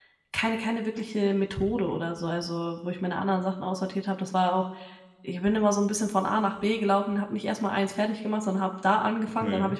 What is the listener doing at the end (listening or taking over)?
listening